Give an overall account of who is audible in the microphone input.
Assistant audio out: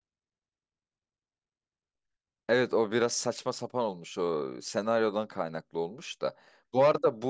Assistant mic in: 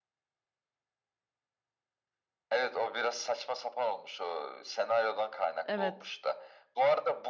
both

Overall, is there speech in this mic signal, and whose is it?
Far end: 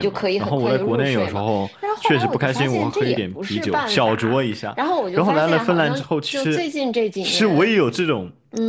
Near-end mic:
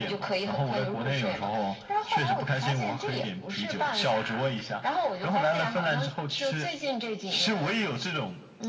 echo only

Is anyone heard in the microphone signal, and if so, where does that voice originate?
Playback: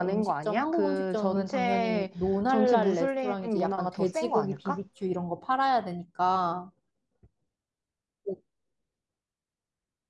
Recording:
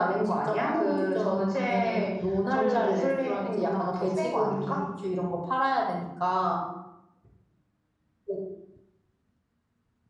echo only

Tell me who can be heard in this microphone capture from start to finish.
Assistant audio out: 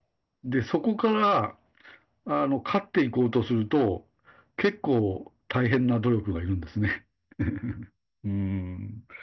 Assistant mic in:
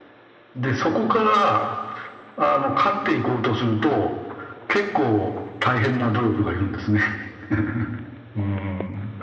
echo only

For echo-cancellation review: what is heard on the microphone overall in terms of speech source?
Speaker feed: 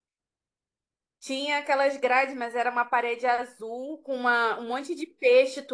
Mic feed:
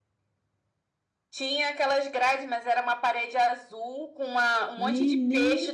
both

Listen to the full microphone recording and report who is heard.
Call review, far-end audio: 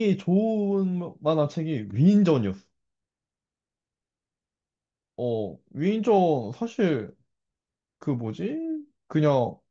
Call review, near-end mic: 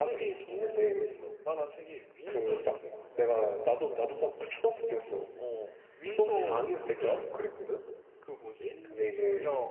both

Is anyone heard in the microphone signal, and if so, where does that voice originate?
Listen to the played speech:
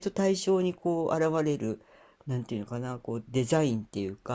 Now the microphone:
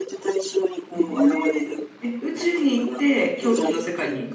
both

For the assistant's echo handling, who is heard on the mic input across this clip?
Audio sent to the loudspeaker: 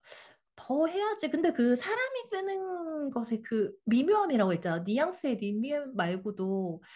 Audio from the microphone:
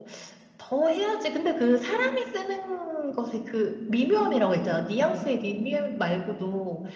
echo only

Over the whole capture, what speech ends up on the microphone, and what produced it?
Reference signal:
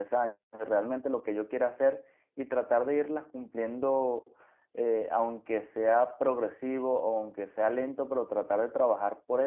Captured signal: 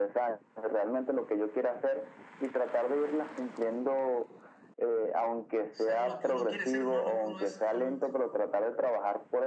both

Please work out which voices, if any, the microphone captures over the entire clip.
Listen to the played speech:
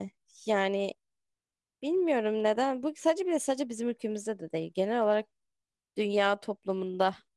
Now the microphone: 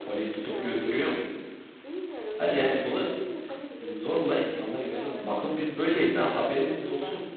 both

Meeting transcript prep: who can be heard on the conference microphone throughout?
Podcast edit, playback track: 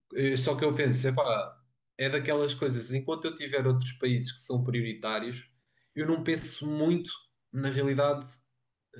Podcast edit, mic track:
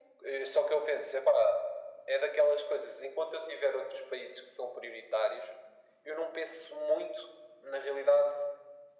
echo only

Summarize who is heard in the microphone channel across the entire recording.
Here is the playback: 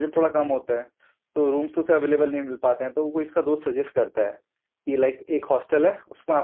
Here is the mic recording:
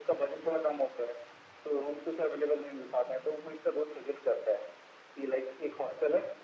echo only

